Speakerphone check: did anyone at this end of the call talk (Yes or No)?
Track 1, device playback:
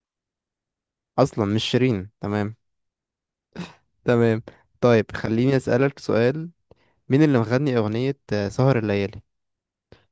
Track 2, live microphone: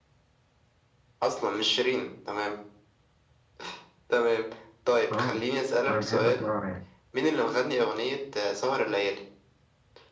Yes